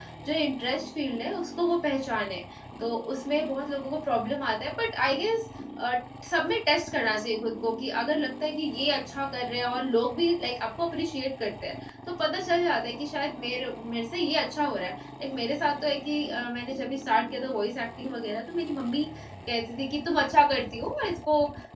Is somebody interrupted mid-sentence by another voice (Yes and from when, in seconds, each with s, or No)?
No